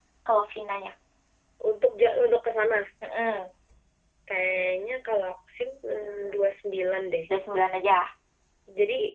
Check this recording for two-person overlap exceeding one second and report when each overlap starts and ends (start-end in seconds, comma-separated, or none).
none